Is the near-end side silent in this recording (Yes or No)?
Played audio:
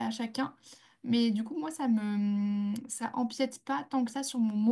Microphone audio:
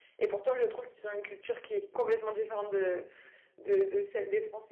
No